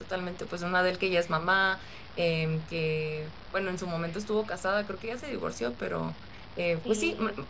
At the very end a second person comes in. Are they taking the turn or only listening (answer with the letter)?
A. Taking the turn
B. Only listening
B